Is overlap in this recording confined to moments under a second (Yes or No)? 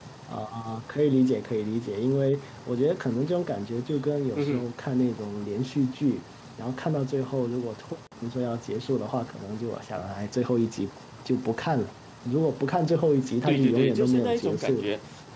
No